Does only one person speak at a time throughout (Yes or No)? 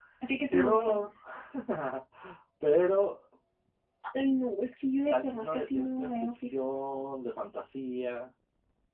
No